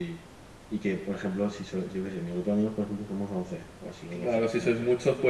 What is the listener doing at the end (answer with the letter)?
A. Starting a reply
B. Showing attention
A